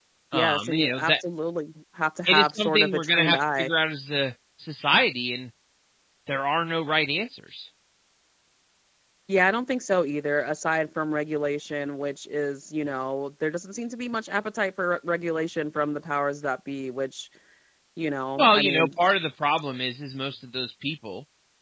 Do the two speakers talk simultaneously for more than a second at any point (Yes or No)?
Yes